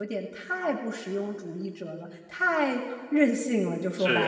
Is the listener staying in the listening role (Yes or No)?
No